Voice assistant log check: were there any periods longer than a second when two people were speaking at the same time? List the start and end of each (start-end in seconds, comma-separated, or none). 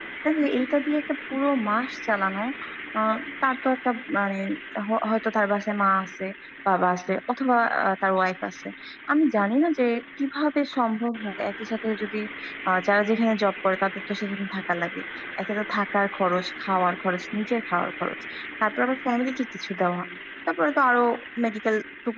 none